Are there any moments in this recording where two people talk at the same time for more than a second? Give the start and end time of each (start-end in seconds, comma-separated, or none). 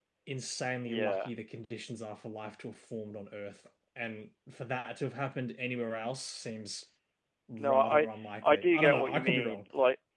8.4-9.6